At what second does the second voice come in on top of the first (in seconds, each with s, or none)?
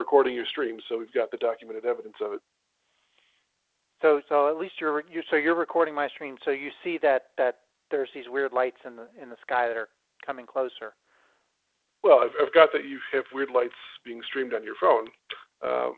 none